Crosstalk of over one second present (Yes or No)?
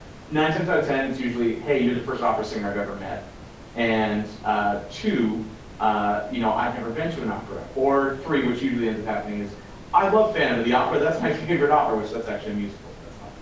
No